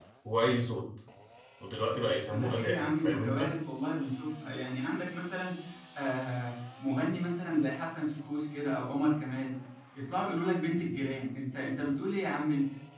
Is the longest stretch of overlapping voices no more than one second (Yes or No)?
No